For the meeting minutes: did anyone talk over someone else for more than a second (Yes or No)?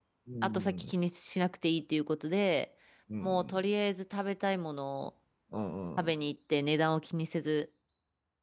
No